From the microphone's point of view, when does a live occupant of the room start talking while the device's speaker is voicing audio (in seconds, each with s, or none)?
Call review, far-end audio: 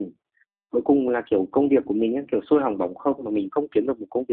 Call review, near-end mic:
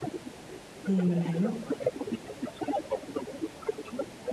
0.8 s